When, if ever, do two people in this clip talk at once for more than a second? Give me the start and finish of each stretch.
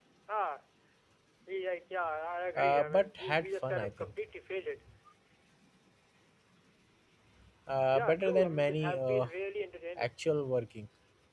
2.6-4.1, 7.9-9.3

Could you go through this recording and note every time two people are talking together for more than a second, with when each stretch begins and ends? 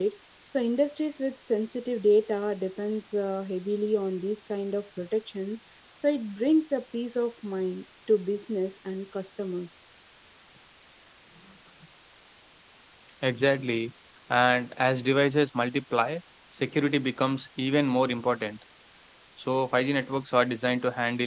none

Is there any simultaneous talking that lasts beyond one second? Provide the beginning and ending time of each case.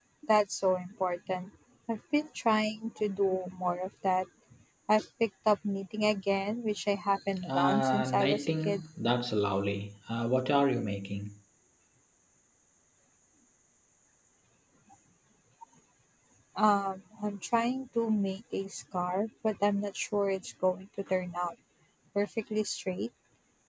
7.4-8.8

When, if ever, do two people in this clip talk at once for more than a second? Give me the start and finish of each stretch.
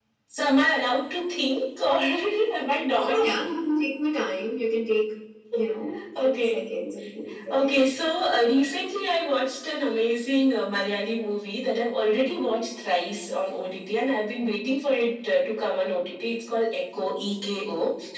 none

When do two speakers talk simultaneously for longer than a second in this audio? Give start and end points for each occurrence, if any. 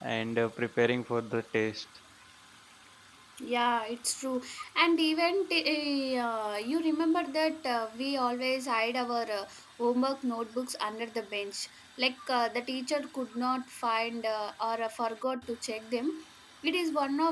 none

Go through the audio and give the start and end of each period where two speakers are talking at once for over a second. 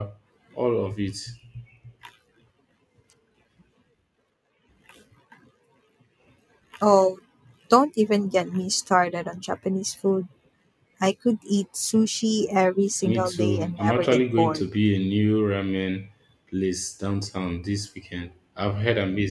13.0-14.6

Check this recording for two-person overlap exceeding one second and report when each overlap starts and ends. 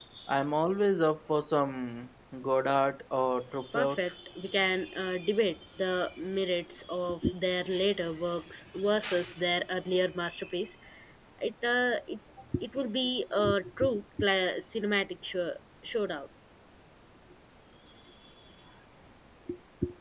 none

